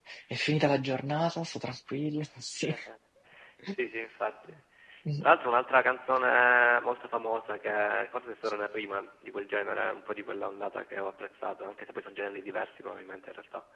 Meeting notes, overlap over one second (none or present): none